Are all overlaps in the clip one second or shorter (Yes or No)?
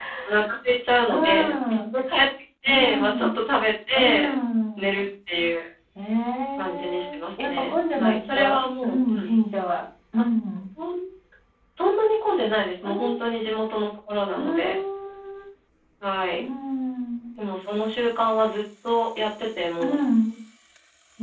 No